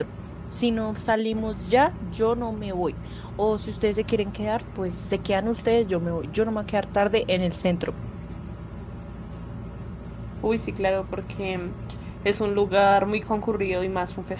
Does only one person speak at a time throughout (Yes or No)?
Yes